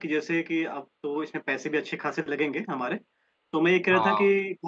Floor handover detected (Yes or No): No